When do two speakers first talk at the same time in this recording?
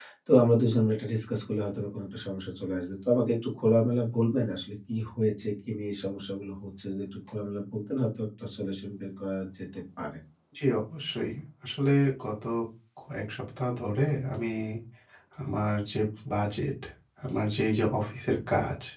none

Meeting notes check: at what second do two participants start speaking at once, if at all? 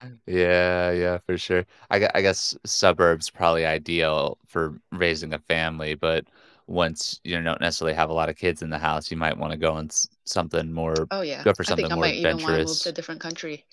11 s

